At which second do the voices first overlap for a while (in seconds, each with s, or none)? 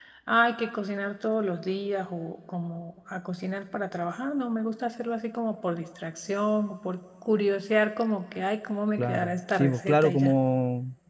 9.0 s